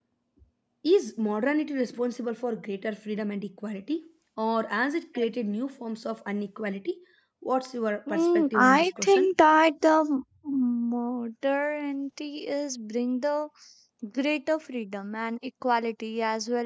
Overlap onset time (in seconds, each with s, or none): 8.1 s